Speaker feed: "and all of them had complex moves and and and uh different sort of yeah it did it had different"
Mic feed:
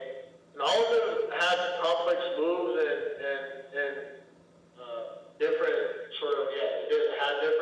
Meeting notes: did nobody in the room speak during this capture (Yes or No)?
Yes